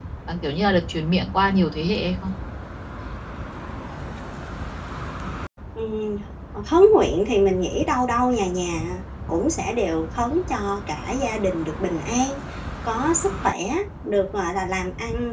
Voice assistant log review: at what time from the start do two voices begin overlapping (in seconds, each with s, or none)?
none